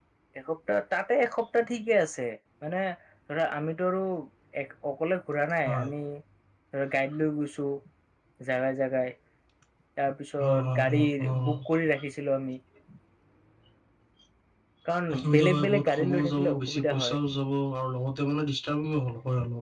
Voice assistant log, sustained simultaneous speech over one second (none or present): present